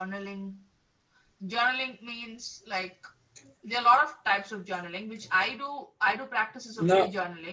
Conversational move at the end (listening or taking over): listening